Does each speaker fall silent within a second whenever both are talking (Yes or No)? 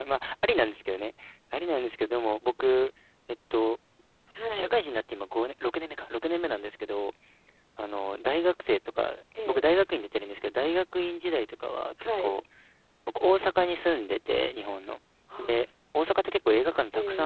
Yes